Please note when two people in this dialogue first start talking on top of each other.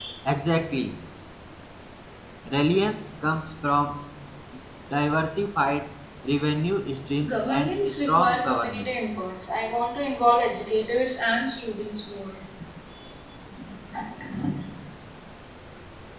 7 s

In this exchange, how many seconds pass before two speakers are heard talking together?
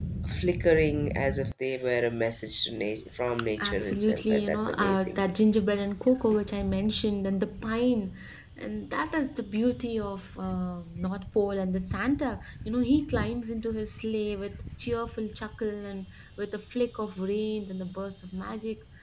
4 s

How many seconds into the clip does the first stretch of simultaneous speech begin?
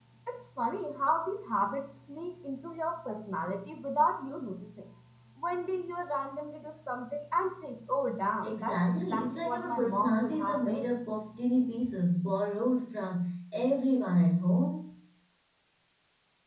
8 s

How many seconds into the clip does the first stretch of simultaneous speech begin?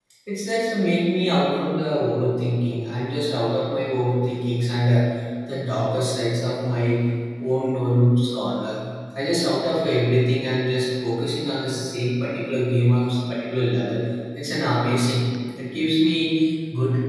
none

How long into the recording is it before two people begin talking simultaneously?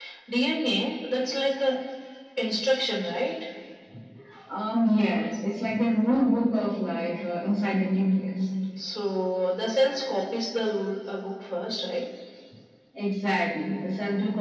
none

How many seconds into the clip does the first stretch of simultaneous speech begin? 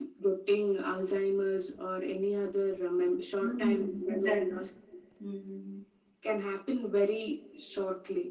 3 s

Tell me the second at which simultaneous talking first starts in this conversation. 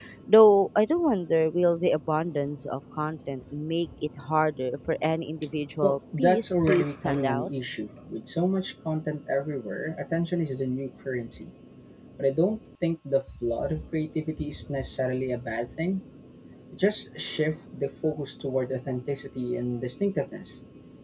6 s

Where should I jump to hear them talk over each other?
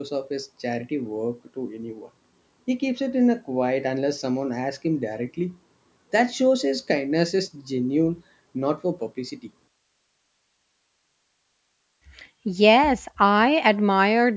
none

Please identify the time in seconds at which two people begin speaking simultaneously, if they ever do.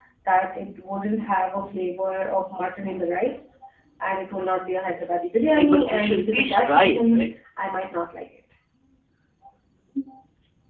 6 s

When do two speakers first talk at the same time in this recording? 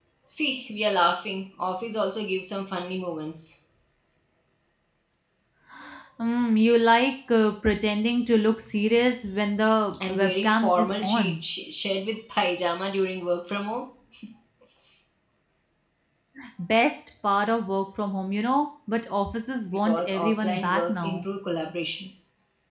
10 s

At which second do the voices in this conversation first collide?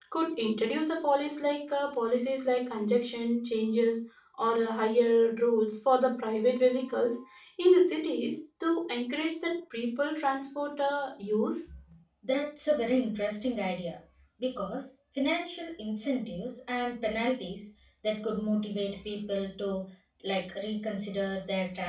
none

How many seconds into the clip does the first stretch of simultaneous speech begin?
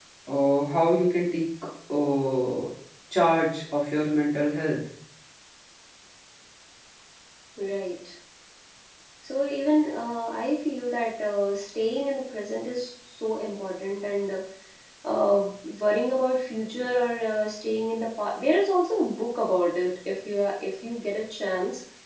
none

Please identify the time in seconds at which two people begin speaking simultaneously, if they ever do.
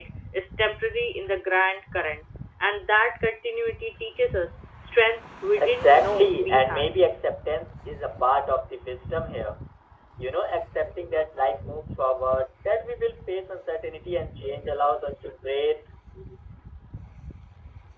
6 s

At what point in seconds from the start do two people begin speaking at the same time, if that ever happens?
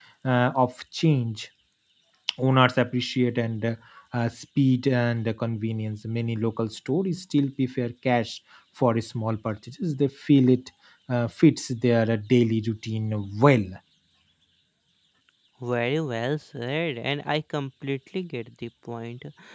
none

